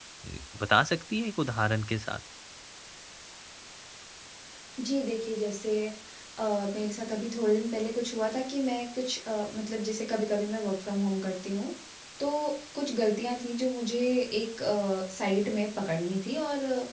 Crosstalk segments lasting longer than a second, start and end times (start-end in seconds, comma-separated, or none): none